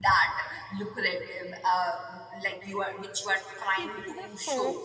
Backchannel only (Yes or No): No